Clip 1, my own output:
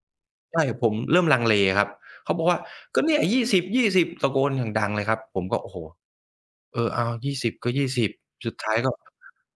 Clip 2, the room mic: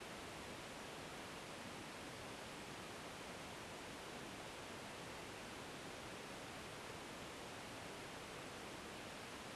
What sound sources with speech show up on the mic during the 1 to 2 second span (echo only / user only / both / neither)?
neither